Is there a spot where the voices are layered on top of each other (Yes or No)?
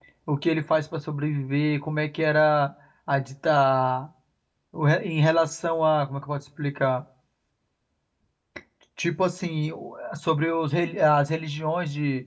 No